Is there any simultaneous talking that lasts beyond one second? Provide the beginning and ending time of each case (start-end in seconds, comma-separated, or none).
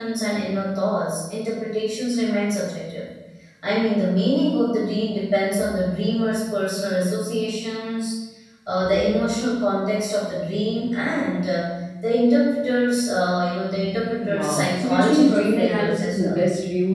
14.2-16.4